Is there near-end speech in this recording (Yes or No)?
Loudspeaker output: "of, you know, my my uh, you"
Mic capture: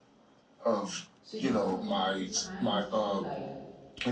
Yes